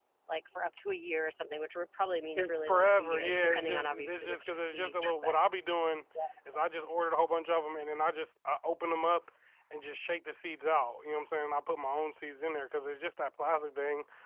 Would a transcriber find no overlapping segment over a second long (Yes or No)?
No